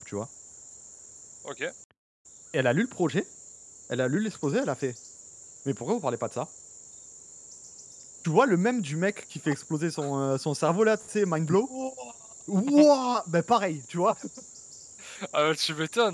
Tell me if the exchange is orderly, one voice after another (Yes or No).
Yes